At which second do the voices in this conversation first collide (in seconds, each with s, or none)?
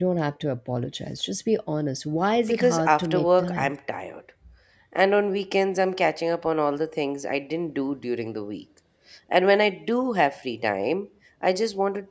2.5 s